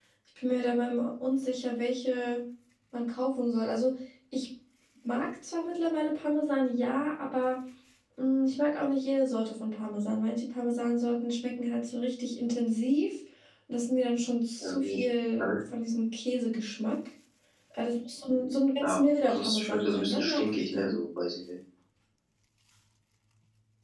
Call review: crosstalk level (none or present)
present